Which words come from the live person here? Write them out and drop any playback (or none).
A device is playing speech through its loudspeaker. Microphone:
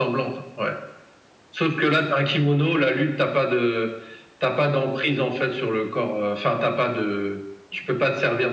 none